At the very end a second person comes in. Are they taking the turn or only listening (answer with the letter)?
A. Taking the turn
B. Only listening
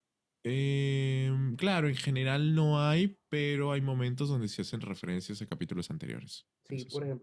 A